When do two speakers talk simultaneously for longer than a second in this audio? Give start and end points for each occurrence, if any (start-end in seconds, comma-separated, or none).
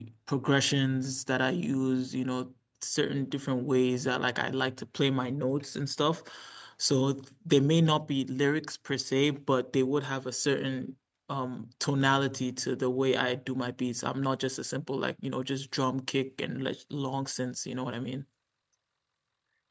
none